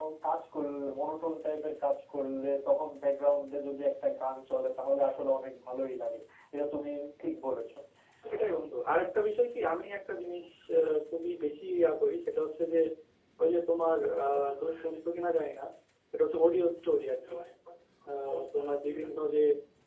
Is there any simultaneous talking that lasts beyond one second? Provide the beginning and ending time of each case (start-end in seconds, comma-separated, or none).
none